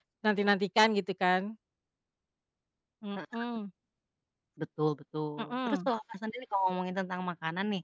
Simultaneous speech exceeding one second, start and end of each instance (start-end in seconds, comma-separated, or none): none